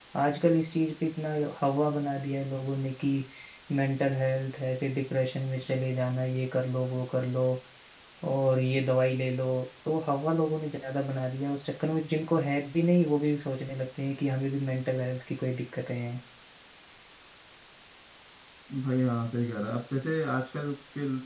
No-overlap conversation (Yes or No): Yes